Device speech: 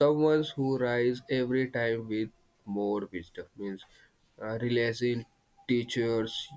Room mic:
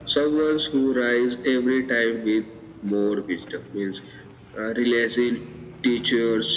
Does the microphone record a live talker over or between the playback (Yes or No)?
No